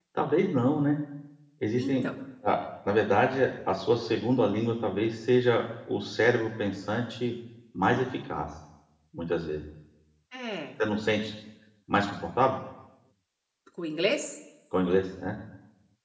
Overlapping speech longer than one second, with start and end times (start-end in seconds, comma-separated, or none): none